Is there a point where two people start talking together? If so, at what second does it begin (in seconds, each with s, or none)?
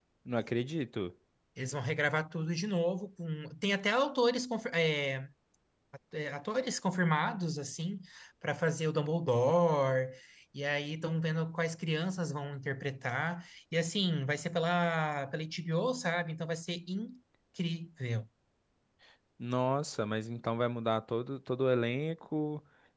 none